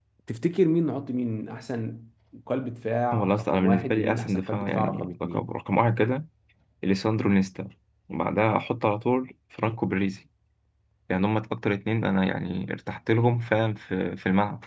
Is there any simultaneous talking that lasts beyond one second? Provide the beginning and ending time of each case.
3.1-5.5

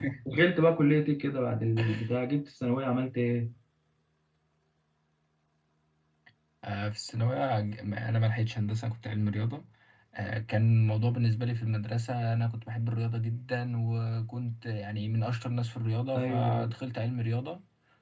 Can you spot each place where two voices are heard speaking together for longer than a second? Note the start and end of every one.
none

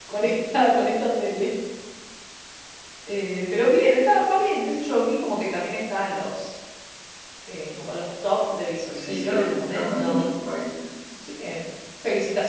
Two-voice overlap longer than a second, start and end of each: 8.9-10.3

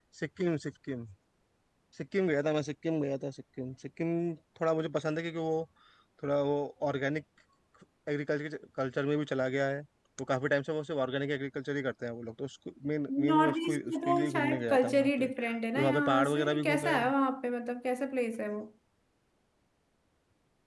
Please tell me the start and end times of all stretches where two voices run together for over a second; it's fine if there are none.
13.2-16.9

